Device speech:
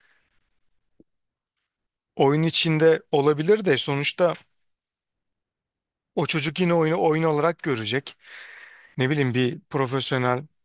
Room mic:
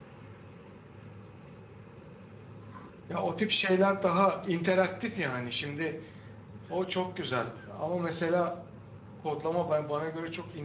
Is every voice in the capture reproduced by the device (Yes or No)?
No